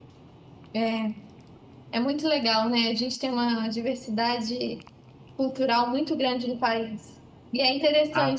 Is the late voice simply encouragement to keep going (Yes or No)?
Yes